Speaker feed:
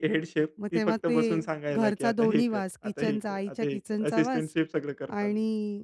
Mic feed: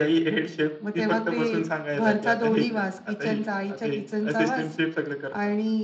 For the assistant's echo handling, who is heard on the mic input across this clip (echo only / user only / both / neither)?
echo only